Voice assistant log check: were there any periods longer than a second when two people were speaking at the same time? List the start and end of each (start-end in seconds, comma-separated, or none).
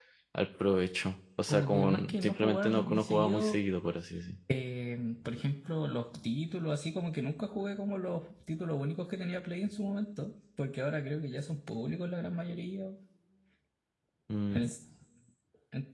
1.5-3.6